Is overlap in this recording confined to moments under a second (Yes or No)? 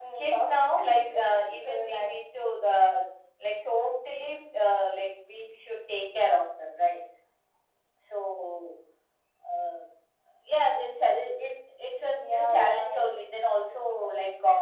No